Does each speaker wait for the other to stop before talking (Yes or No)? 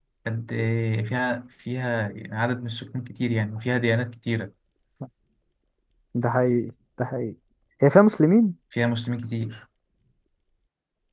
Yes